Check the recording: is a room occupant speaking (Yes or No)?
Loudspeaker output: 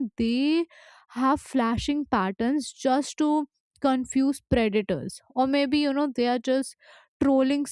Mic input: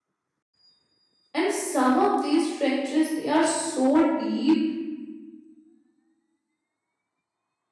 Yes